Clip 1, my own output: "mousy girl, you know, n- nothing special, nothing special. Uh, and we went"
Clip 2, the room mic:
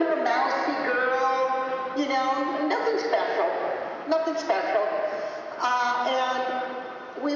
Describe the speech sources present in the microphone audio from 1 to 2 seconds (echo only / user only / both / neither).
echo only